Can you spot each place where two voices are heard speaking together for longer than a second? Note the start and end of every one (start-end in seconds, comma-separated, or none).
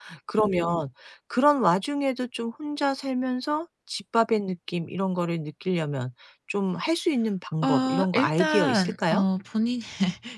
7.6-9.2